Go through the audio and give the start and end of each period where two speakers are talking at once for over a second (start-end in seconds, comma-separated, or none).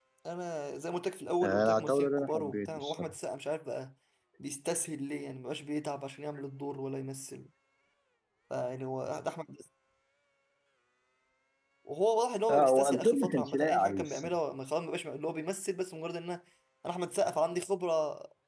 1.4-3.1, 12.5-14.3